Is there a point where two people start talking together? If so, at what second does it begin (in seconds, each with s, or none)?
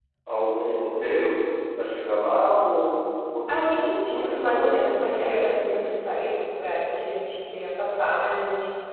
3.5 s